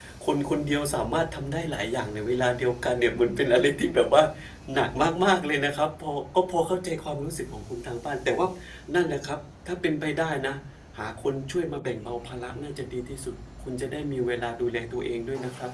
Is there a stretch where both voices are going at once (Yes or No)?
No